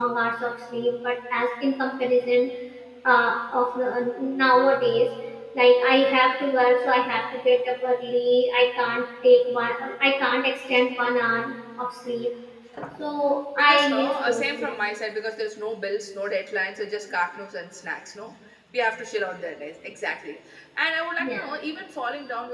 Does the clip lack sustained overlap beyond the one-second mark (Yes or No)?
No